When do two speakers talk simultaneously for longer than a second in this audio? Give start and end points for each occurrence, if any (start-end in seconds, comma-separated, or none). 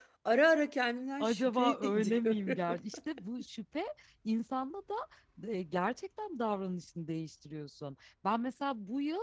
1.2-2.8